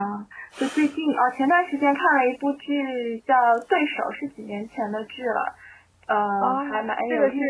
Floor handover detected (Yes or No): Yes